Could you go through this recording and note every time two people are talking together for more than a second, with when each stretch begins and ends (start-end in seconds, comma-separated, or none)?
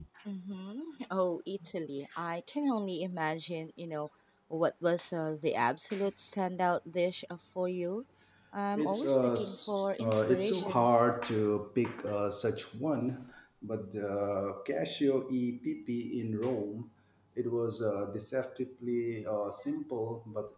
8.8-10.9